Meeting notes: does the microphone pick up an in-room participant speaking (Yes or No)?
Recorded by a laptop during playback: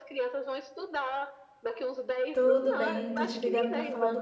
Yes